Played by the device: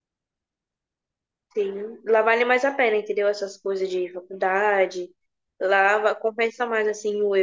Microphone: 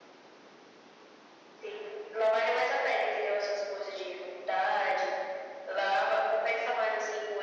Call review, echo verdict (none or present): present